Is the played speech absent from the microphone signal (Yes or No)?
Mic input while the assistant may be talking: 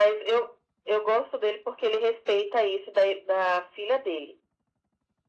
No